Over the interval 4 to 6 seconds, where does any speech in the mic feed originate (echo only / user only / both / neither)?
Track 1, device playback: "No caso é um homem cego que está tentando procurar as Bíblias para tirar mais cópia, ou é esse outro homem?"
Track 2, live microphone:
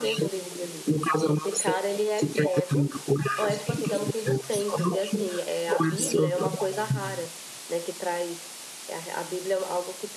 both